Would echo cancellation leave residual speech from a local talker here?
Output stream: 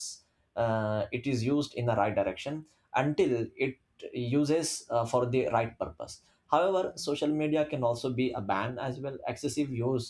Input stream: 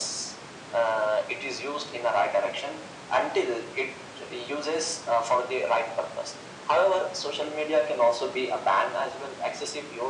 No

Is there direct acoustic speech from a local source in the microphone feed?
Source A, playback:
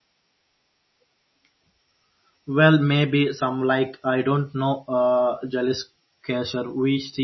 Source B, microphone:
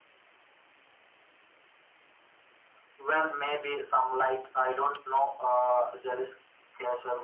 No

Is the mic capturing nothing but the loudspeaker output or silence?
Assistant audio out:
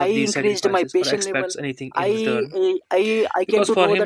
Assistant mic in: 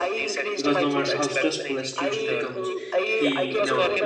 No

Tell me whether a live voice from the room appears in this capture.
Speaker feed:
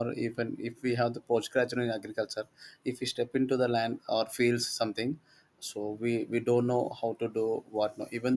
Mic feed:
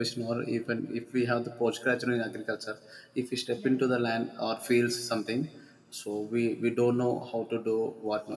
Yes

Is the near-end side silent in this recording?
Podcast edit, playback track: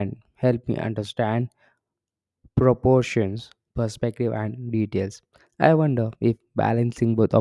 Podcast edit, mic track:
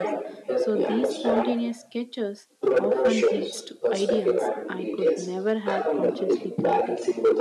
No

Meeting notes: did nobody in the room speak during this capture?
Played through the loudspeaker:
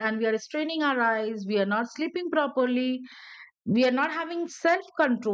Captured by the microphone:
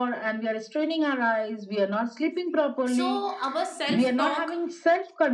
No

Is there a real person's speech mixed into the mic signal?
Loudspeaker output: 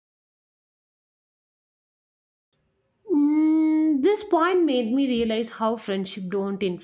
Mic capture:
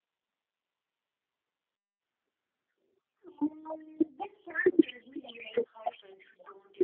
No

